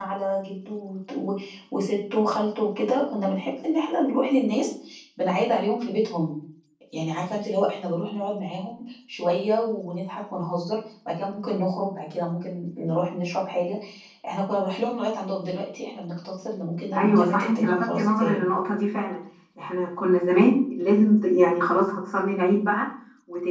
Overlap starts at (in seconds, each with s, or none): 16.9 s